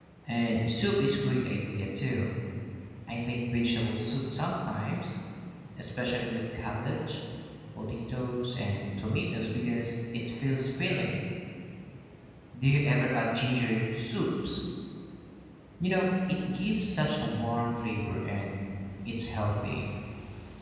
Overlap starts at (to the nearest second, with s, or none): none